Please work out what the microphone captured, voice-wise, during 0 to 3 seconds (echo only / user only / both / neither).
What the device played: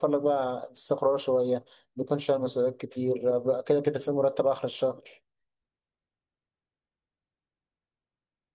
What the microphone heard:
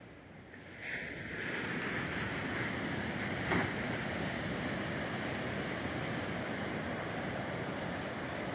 neither